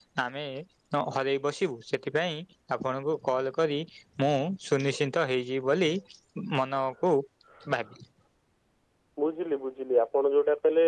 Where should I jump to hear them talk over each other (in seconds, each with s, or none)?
none